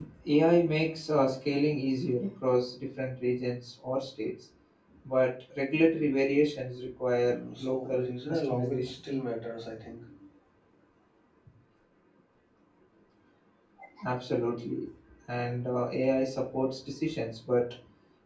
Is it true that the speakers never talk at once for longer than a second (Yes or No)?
No